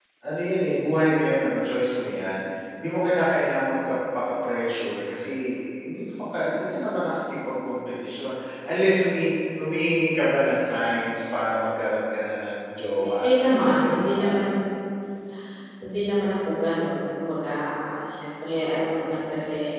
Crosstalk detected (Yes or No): Yes